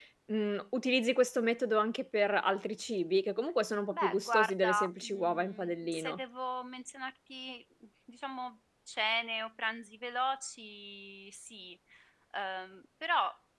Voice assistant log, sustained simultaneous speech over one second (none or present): present